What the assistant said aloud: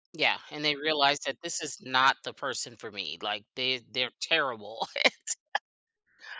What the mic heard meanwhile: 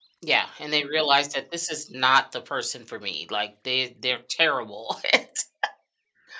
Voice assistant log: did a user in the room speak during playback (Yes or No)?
No